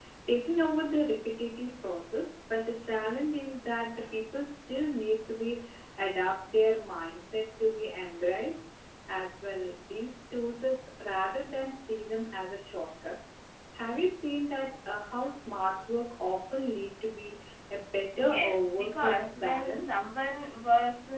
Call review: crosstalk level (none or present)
present